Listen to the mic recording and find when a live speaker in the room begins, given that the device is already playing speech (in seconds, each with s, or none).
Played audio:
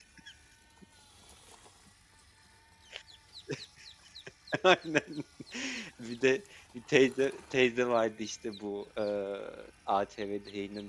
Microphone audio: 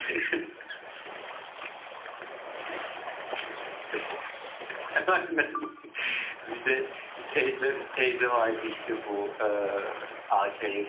none